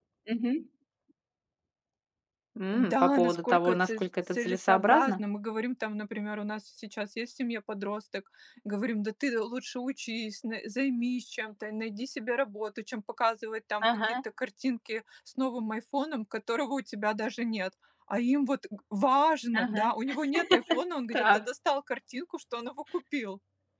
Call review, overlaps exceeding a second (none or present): present